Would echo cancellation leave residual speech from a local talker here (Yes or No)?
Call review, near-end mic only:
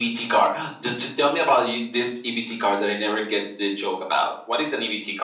No